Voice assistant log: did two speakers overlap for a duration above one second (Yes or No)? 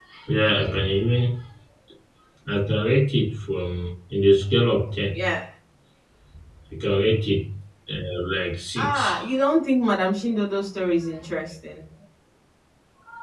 No